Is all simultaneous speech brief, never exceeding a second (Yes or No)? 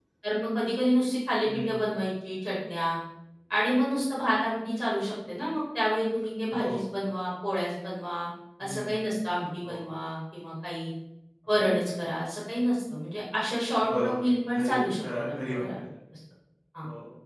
No